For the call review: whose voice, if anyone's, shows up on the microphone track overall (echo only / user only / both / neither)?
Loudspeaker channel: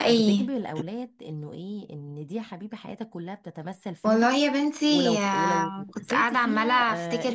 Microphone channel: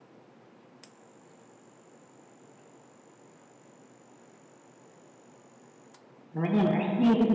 user only